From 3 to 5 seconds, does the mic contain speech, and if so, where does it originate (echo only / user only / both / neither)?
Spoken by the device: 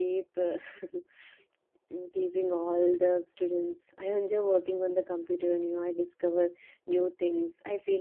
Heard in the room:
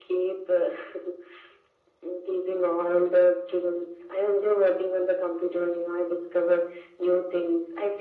echo only